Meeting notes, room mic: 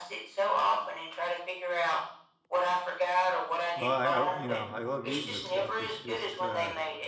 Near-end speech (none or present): present